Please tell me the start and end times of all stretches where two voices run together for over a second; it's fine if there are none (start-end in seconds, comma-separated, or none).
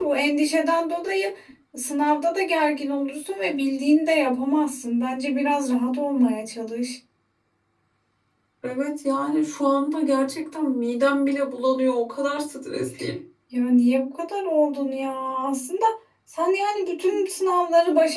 none